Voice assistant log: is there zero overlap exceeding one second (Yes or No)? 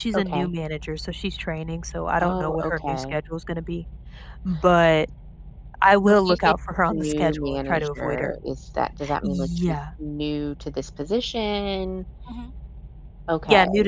No